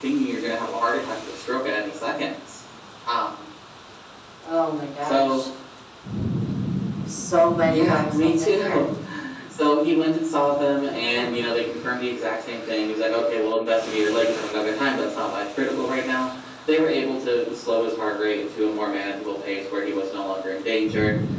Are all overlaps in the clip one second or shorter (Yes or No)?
No